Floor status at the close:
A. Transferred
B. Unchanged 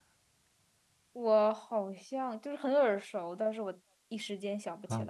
A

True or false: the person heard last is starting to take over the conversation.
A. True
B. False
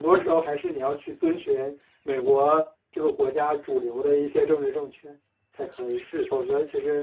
B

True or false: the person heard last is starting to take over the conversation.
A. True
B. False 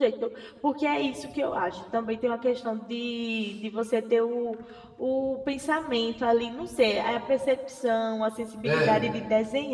B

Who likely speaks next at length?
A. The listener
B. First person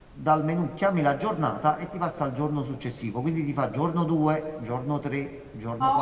A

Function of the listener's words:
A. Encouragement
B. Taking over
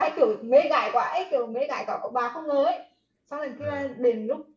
A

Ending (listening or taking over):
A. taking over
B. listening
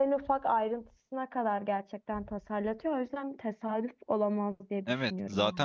A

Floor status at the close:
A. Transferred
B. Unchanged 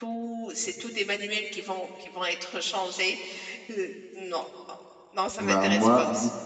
A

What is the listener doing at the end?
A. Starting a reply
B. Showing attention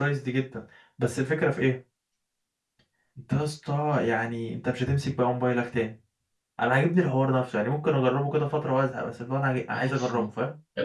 A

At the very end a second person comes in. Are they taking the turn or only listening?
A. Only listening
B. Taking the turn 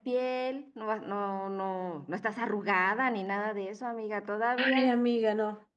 B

